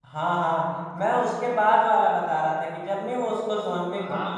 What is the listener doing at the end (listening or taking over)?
taking over